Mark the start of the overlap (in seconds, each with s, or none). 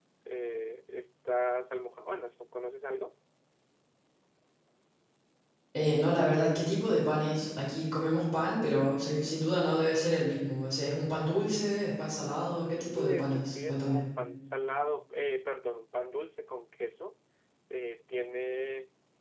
12.7 s